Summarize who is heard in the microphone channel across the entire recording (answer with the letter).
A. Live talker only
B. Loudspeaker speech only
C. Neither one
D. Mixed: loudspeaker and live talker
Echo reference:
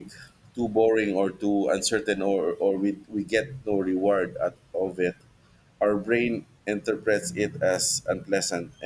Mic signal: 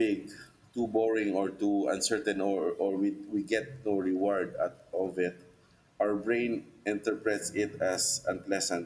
B